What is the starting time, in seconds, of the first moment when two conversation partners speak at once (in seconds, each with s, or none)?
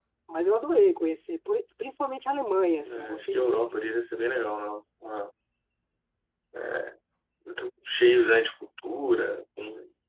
2.8 s